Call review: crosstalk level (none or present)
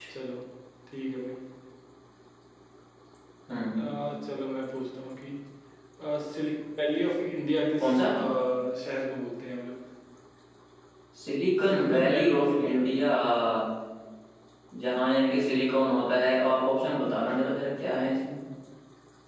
present